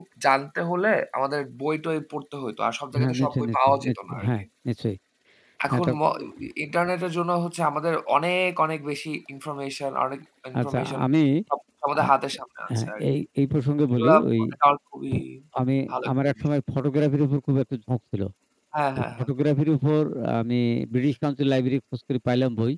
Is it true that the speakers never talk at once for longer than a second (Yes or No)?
No